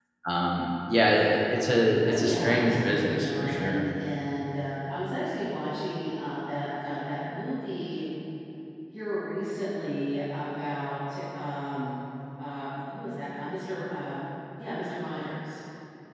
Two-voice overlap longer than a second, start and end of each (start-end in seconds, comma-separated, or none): 2.0-3.8